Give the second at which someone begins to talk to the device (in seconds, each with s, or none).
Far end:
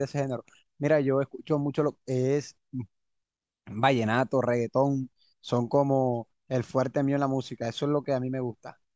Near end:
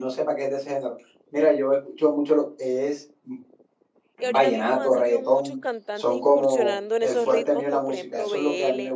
4.2 s